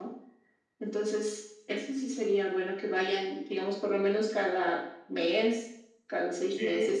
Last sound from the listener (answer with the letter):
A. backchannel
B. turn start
A